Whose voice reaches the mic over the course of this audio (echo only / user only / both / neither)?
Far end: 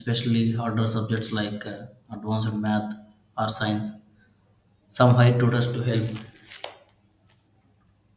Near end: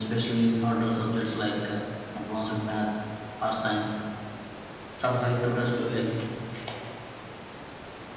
echo only